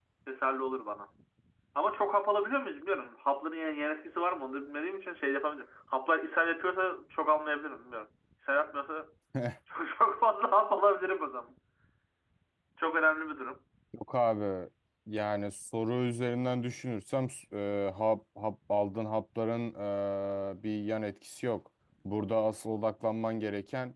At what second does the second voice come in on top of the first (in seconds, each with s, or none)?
none